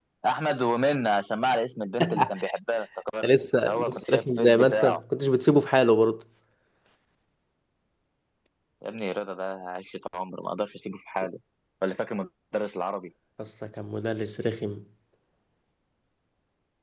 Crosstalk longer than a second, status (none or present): present